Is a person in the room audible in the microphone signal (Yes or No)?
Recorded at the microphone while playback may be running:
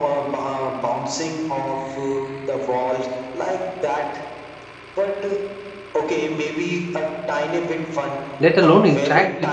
Yes